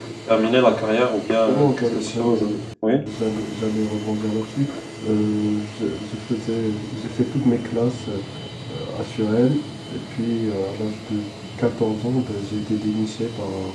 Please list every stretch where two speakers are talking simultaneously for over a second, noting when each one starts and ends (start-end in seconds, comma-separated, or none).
0.7-2.5